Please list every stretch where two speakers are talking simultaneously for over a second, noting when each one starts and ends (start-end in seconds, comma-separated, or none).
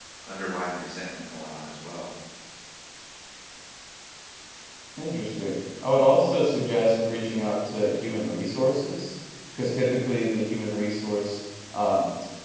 none